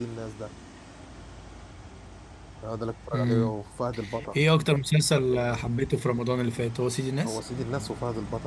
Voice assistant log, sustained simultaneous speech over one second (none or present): none